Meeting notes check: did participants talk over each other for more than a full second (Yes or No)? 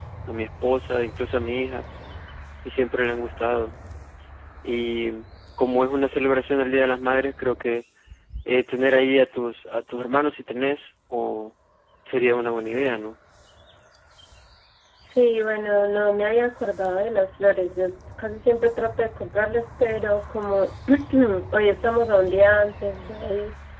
No